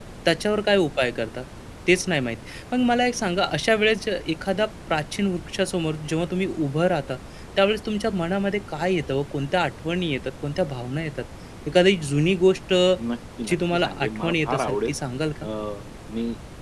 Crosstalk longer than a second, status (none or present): present